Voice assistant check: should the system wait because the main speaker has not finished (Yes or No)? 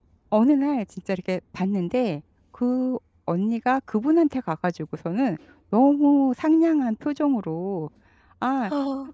Yes